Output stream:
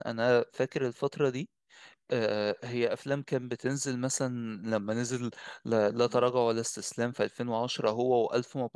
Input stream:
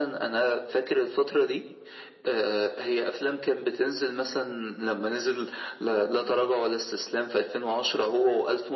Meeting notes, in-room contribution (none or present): none